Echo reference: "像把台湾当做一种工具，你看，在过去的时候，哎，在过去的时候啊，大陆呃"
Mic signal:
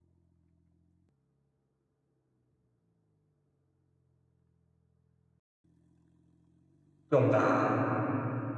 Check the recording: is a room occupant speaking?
Yes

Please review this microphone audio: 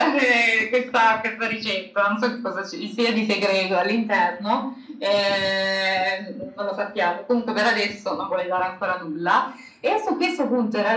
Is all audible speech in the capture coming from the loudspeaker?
Yes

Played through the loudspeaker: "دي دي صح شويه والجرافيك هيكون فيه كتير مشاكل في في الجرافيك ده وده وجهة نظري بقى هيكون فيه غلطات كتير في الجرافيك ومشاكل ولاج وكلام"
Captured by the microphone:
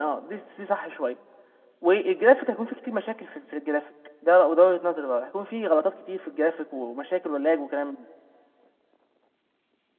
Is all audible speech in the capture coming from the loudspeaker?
Yes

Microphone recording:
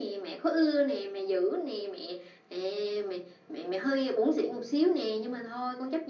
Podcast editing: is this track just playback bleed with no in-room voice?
Yes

